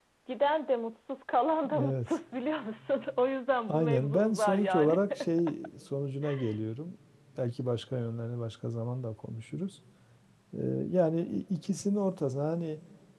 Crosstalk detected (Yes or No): Yes